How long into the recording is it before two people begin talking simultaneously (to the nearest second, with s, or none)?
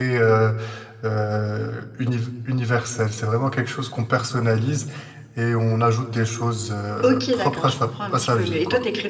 7 s